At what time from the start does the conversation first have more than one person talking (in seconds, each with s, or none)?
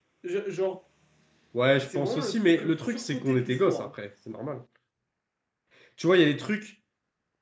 1.8 s